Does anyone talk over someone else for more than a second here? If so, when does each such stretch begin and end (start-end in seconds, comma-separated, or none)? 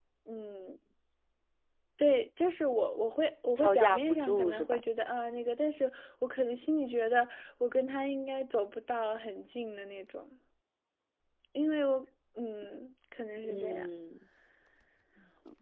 3.6-4.8